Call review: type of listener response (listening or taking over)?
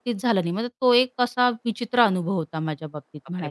taking over